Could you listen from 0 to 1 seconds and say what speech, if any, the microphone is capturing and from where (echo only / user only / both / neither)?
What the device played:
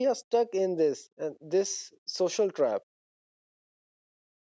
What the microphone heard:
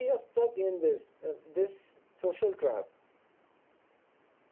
echo only